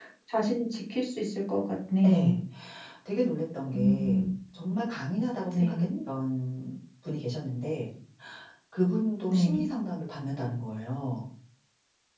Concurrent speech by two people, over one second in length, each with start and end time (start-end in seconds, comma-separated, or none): none